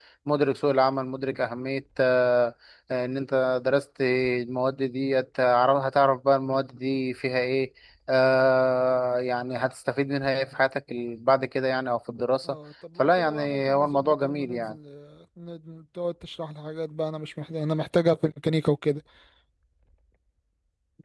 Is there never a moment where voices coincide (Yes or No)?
No